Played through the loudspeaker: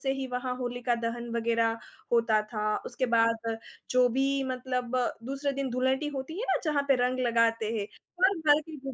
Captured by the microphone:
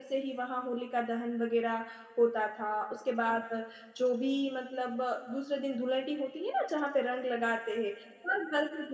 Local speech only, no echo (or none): none